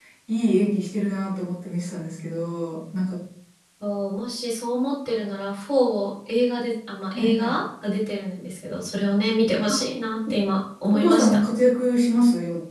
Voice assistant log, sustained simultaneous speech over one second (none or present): none